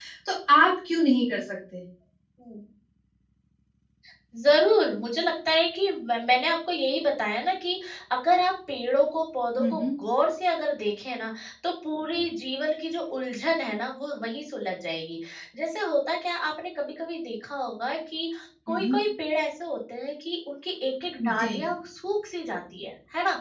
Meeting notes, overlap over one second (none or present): none